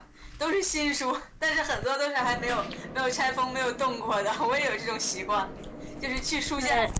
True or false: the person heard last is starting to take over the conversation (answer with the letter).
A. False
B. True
A